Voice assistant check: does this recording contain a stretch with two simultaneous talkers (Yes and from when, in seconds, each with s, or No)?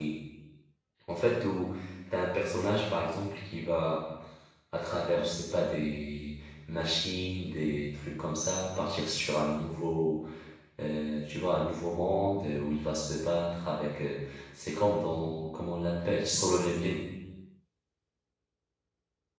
No